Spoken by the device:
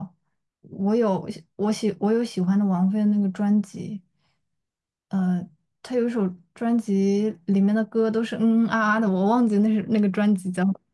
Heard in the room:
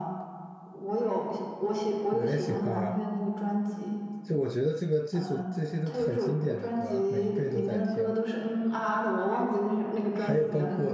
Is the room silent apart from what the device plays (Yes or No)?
No